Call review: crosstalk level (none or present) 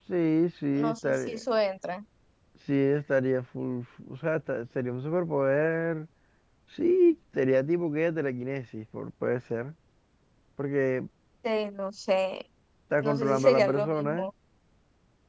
present